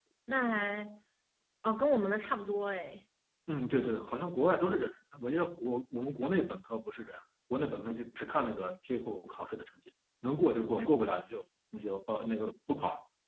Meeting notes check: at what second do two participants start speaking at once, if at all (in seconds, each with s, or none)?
none